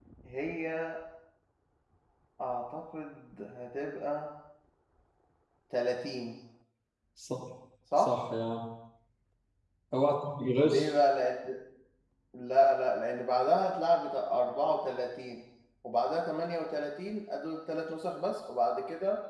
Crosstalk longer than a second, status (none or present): none